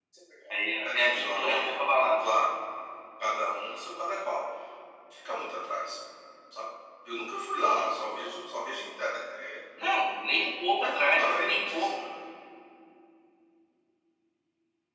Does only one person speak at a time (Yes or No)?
No